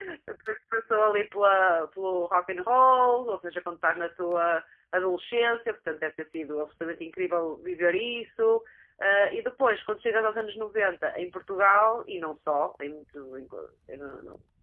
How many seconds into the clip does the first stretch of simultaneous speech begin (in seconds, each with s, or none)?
none